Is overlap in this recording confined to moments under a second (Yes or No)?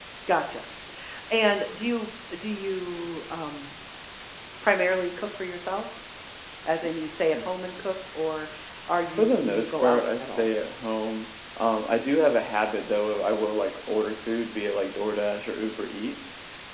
No